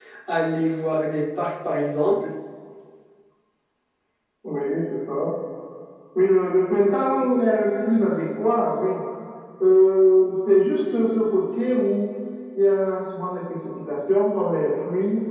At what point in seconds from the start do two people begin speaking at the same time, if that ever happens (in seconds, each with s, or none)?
none